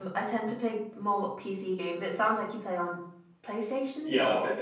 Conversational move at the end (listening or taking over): taking over